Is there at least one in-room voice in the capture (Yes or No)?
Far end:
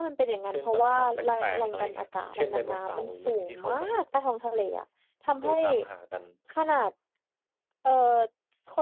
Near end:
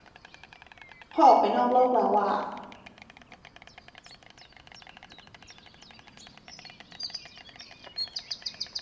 Yes